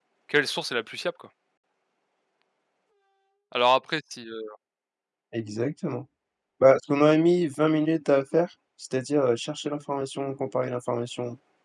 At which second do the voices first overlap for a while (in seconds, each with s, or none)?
none